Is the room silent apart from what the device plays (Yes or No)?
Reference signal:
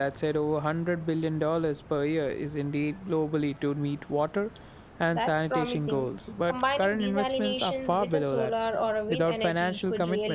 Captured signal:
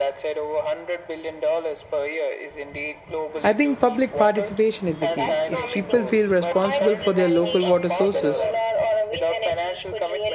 No